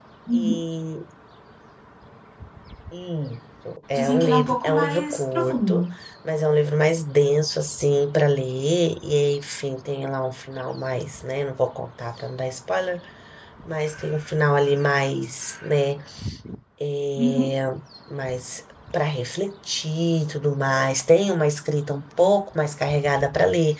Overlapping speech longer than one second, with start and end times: 3.9-5.8

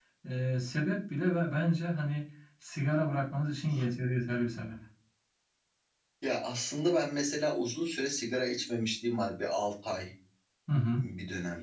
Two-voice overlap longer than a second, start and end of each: none

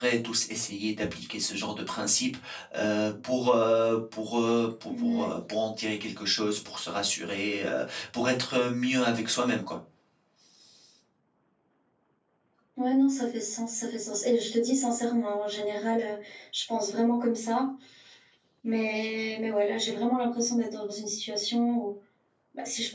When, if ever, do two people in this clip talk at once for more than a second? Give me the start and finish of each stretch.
none

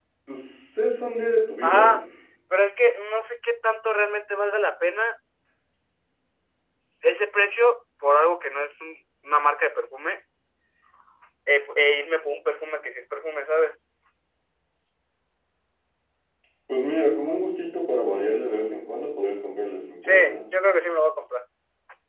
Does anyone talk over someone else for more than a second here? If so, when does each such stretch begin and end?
none

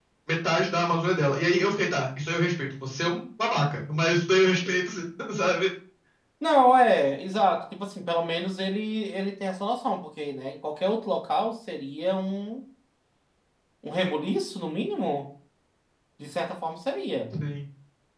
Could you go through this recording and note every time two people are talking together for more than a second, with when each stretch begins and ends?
none

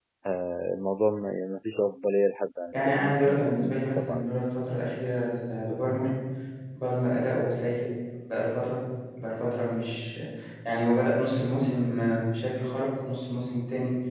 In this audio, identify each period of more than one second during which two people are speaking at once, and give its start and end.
2.7-4.3

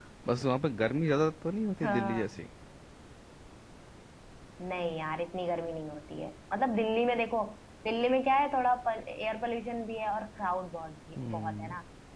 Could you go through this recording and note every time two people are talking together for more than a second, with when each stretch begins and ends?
none

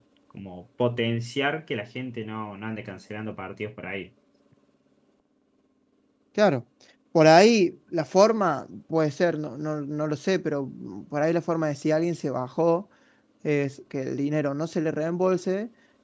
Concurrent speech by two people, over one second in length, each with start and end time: none

